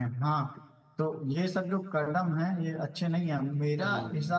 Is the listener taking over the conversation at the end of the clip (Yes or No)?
No